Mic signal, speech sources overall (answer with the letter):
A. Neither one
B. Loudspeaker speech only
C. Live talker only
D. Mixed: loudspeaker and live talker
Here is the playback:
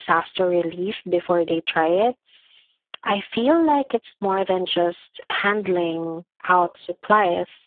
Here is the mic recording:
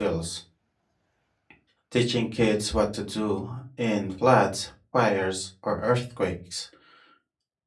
C